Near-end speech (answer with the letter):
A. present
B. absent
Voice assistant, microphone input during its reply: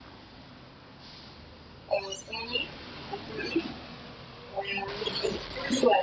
B